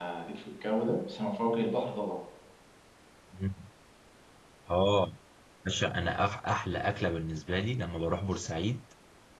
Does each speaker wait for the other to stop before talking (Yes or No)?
Yes